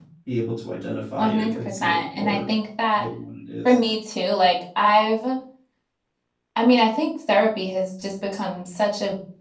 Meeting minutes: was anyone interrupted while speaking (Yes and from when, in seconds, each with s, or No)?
Yes, from 1.2 s